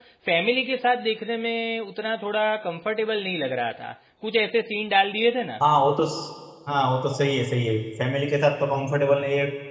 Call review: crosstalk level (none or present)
none